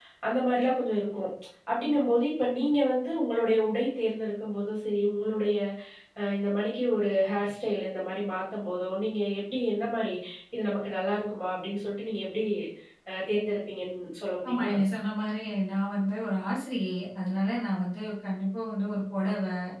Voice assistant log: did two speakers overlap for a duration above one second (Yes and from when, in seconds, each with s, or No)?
No